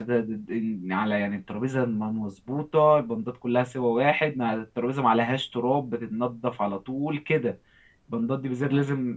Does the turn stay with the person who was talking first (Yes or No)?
Yes